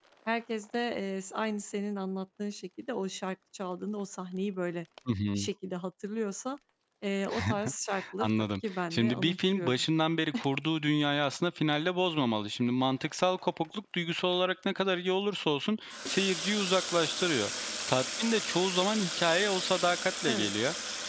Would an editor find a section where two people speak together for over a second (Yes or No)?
Yes